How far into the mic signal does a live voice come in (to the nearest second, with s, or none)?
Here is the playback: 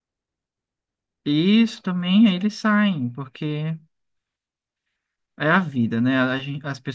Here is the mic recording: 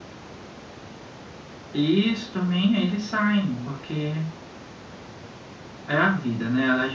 none